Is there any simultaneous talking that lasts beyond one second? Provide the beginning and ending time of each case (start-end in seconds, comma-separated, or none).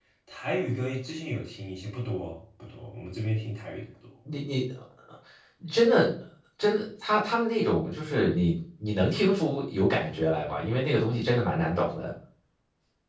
none